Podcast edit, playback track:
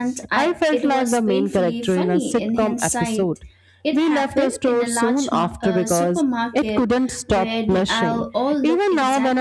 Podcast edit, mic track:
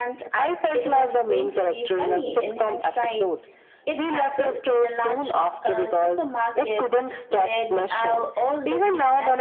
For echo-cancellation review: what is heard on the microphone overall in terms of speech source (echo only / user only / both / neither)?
echo only